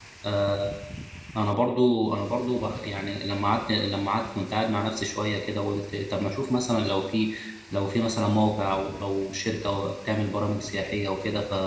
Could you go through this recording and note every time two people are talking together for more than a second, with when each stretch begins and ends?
none

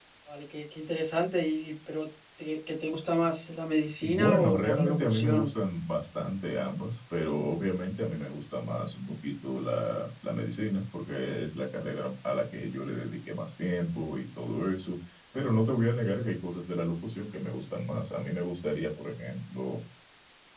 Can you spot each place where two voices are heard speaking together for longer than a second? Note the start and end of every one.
4.0-5.5

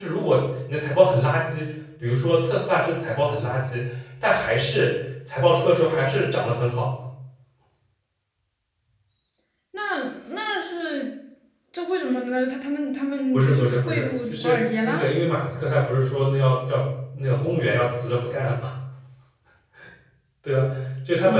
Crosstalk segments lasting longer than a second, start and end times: 13.3-15.1

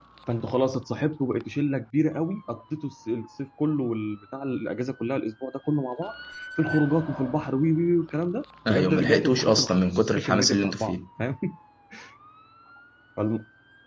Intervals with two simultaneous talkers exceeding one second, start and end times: 8.7-10.9

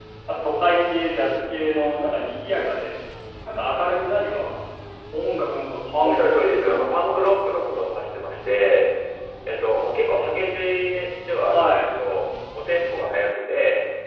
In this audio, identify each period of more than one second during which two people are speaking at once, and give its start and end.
6.0-7.2

